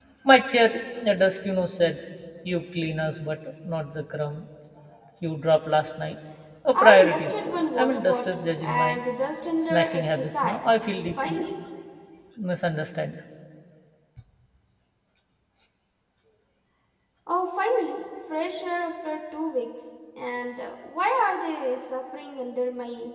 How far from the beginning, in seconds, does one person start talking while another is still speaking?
6.8 s

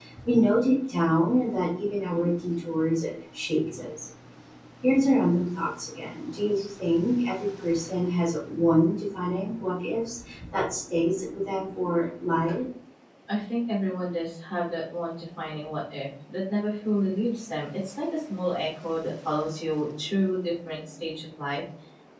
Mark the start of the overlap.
none

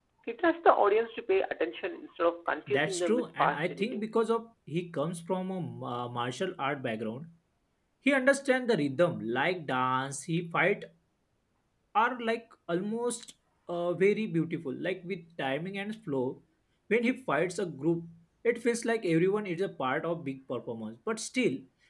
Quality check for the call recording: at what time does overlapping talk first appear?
2.7 s

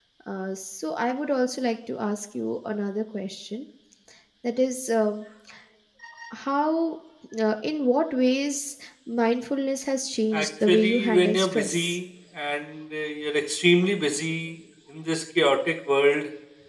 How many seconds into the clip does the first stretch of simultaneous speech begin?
10.3 s

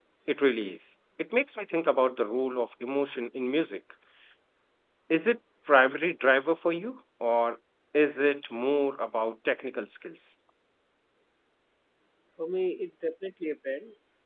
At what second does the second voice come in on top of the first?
none

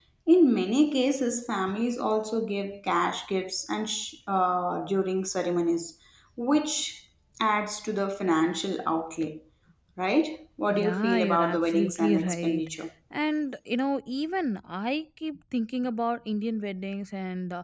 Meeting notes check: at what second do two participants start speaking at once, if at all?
10.7 s

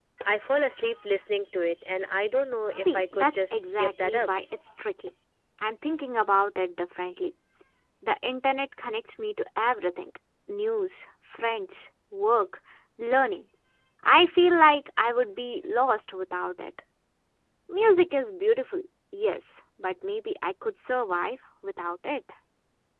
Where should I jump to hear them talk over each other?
2.9 s

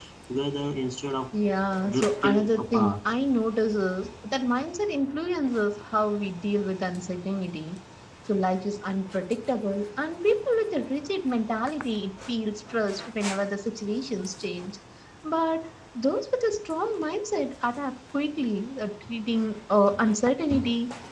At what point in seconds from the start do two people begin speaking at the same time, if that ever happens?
1.9 s

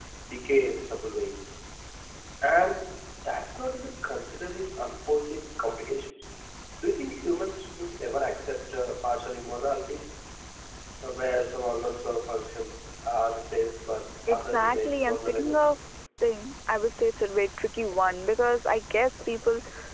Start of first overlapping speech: 14.3 s

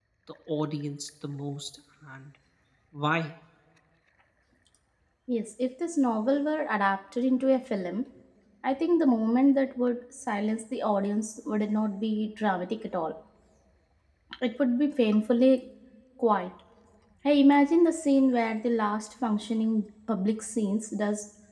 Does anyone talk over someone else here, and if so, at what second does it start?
none

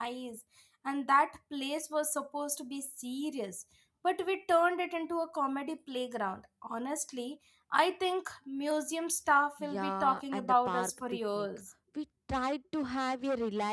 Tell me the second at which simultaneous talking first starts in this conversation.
9.6 s

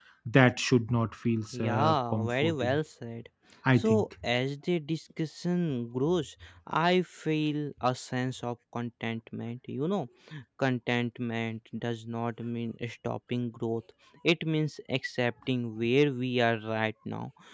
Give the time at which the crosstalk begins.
1.5 s

